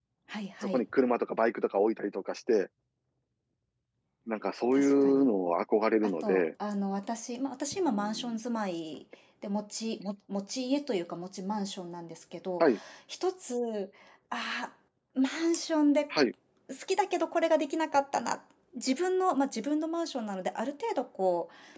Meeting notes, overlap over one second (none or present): none